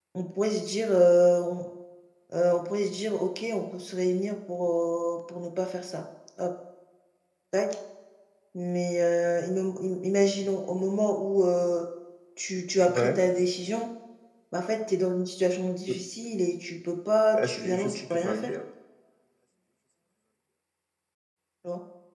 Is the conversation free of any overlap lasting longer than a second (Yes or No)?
No